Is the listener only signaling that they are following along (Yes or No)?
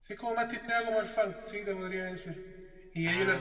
Yes